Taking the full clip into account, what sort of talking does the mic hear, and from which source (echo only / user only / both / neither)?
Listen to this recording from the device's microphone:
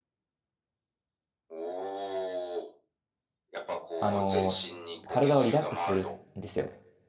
both